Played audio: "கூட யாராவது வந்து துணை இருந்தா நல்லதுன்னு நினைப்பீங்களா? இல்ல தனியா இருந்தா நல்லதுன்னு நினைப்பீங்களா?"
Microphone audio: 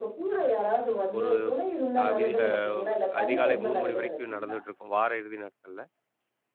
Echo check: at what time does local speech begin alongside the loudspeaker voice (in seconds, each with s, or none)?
1.2 s